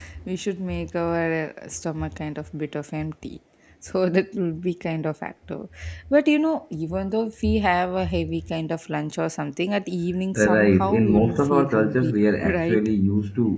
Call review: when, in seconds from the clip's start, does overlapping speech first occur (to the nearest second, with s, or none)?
10 s